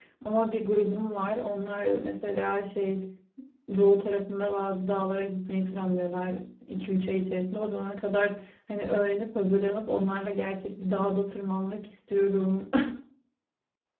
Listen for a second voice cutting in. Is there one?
No

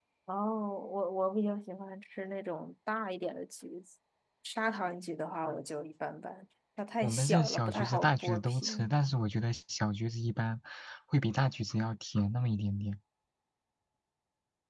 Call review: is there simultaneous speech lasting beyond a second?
Yes, from 7.0 s

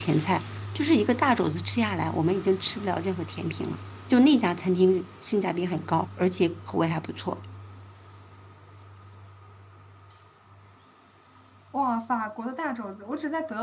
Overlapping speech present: No

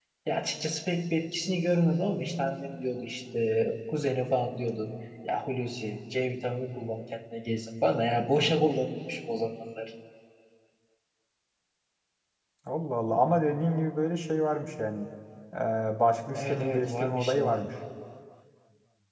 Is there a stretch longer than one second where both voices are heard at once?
Yes, from 16.3 s

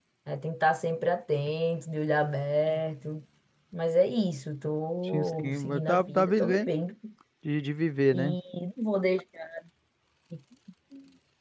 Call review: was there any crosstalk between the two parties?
Yes, from 5.1 s

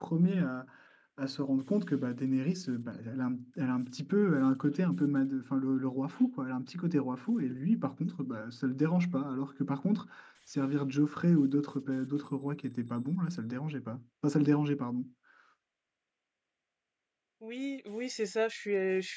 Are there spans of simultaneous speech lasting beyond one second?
No

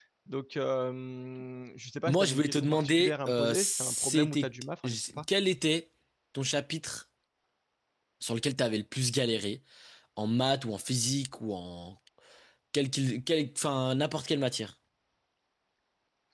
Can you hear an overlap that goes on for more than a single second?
Yes, from 2.1 s

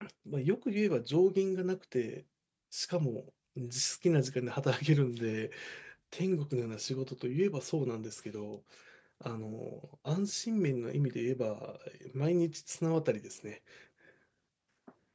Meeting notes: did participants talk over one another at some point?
No

